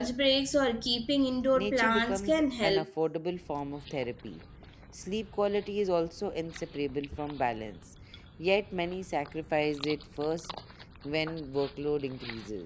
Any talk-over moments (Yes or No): Yes